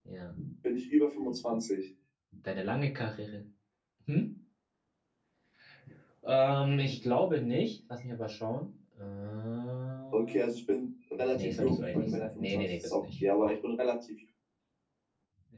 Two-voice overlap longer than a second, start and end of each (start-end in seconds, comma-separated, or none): 11.3-13.2